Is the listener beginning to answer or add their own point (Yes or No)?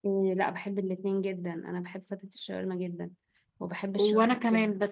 Yes